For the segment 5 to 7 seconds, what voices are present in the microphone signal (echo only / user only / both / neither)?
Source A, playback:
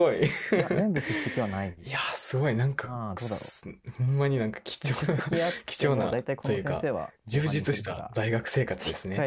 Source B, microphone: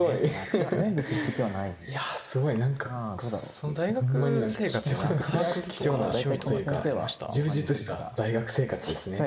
both